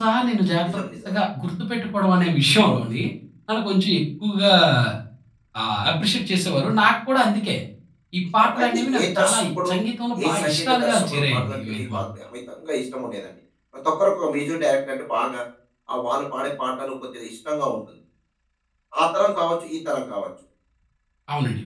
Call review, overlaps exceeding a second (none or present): present